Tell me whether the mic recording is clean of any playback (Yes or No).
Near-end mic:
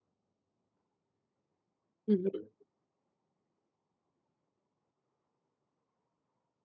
Yes